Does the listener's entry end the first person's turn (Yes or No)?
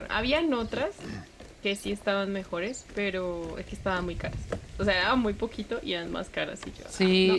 Yes